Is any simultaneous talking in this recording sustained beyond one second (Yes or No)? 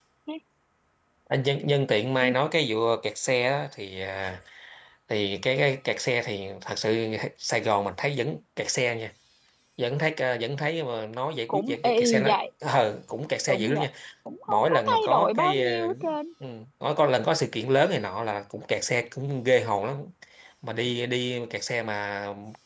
Yes